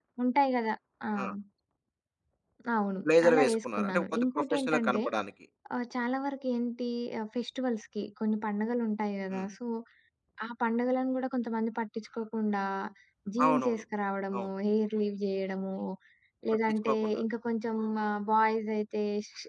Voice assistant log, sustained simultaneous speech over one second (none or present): present